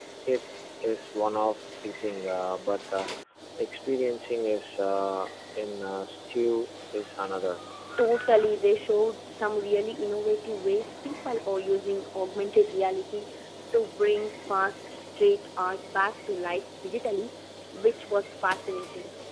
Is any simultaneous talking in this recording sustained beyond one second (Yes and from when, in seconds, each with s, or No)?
No